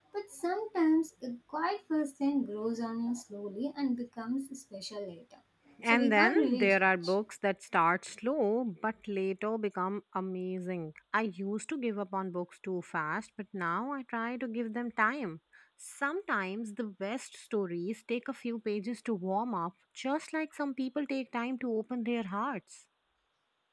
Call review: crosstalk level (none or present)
present